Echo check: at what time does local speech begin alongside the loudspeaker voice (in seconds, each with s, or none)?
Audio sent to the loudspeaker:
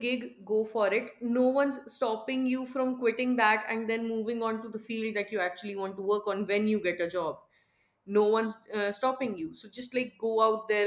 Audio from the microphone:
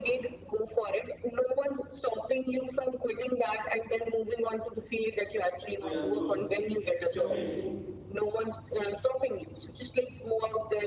5.8 s